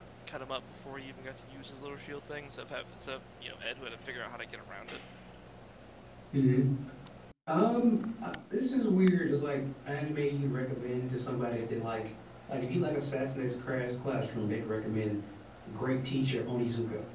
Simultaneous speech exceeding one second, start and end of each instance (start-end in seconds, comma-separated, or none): none